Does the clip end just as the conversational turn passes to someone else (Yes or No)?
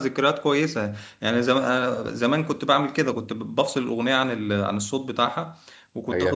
Yes